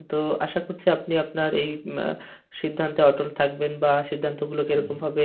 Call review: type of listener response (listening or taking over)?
listening